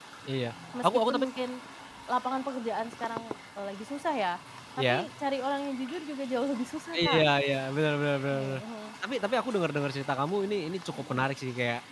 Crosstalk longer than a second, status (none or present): none